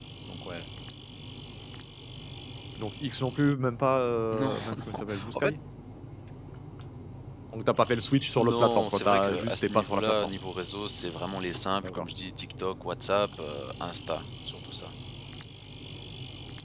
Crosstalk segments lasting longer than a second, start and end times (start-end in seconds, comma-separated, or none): 4.3-5.5, 8.4-10.4